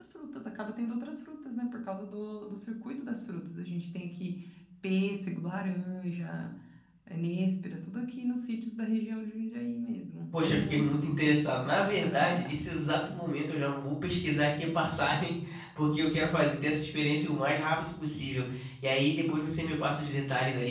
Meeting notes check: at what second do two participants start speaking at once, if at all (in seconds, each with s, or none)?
10.3 s